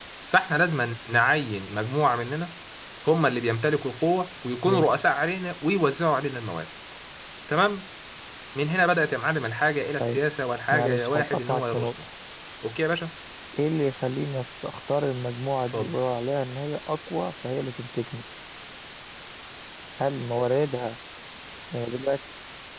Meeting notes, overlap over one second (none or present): present